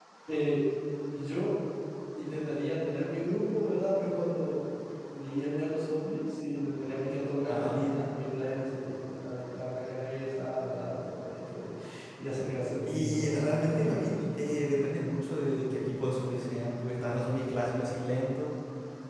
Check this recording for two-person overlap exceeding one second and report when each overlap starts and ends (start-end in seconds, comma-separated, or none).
12.8-14.1